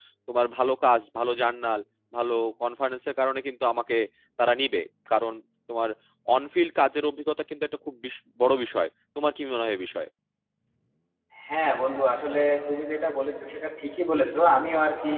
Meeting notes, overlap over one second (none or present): none